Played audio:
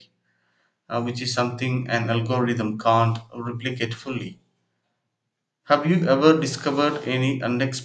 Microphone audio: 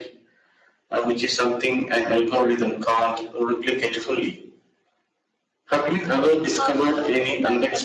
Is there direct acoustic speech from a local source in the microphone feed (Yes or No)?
Yes